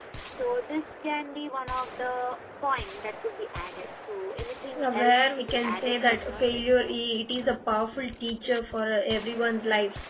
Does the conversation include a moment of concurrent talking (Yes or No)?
Yes